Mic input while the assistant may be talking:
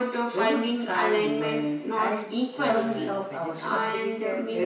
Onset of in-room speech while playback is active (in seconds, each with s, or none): 2.6 s